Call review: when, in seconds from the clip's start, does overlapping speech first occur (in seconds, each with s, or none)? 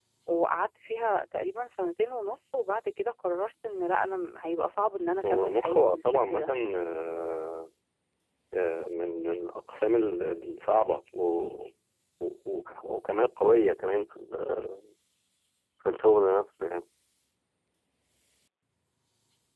5.2 s